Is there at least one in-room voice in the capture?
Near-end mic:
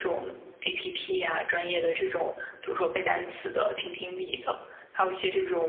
No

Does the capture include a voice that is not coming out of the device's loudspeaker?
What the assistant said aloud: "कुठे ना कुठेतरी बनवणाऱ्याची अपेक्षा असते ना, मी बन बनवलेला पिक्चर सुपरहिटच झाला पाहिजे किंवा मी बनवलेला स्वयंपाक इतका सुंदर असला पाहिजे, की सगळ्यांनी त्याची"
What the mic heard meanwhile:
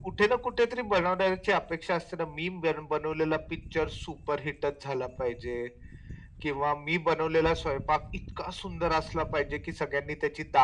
No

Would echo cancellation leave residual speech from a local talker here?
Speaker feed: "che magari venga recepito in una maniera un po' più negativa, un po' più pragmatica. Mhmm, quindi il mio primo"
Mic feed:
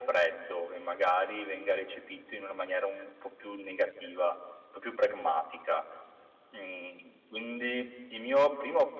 No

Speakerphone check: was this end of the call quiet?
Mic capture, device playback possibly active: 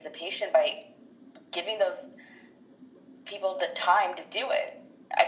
Yes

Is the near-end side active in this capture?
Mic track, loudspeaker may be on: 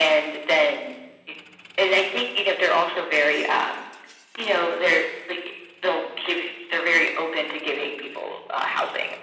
No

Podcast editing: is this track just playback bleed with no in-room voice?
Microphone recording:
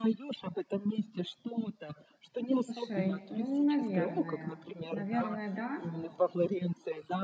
No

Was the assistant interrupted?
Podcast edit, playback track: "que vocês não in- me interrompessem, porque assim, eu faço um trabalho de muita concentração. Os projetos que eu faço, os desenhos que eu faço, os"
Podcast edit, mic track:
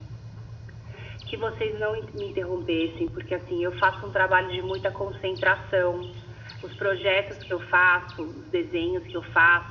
No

